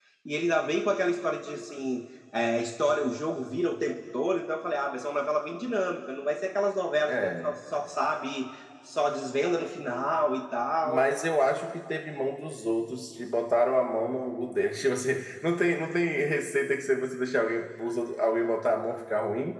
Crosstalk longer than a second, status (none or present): none